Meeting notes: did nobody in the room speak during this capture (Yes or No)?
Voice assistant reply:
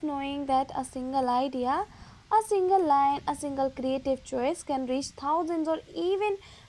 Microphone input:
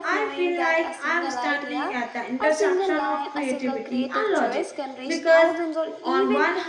No